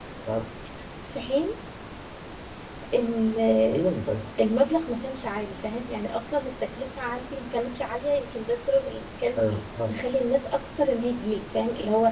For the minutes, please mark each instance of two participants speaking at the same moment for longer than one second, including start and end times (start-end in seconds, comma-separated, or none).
none